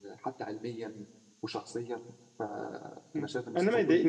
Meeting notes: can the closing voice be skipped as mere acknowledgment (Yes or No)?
No